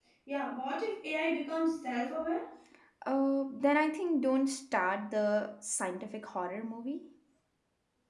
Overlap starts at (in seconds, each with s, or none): none